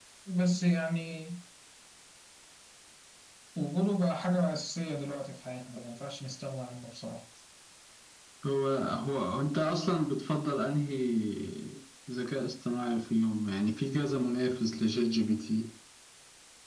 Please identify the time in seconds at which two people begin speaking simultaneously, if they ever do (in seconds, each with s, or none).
none